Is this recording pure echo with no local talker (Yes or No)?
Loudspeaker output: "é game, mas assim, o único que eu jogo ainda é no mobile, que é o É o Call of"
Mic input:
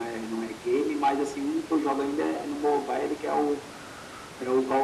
Yes